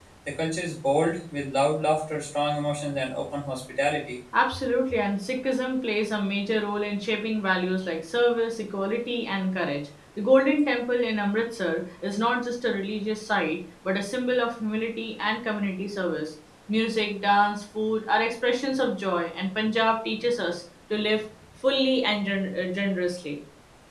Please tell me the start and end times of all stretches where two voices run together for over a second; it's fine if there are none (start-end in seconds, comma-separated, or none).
none